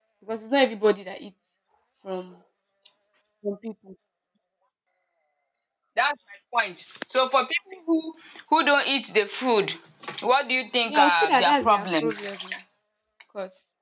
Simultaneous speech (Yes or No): Yes